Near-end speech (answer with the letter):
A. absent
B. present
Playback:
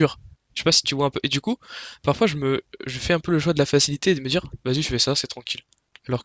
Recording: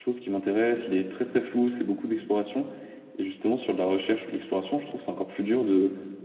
B